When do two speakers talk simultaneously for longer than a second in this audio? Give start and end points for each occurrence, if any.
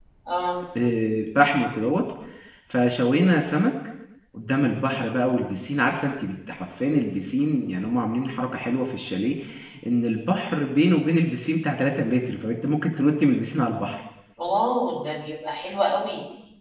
none

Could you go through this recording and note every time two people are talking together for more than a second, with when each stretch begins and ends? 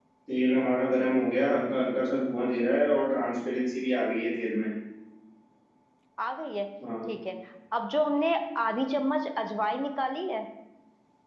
none

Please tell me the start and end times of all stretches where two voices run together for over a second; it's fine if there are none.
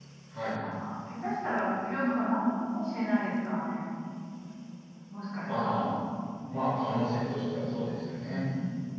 none

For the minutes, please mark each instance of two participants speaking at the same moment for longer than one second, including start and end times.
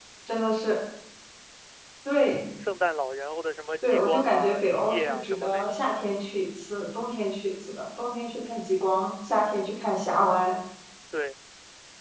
3.8-5.8

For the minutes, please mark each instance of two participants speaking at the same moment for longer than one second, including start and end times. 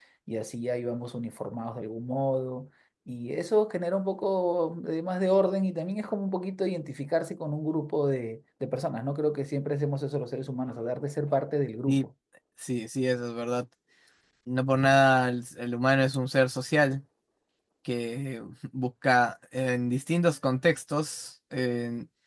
none

